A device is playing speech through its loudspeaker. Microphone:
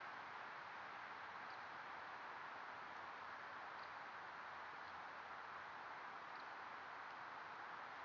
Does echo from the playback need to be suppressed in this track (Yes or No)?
No